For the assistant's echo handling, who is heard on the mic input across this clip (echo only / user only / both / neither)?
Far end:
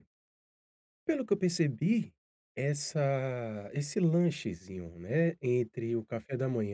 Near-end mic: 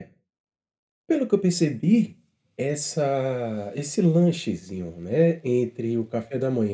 echo only